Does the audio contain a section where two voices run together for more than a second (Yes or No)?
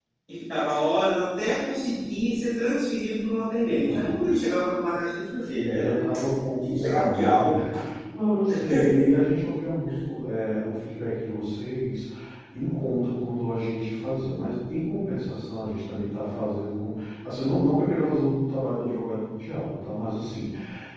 Yes